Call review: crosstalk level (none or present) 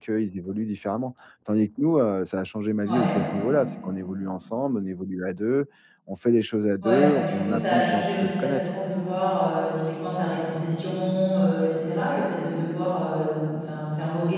present